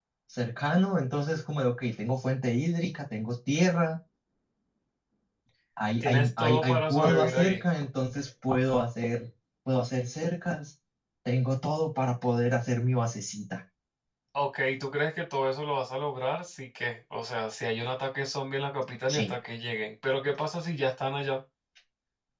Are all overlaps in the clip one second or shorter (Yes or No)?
No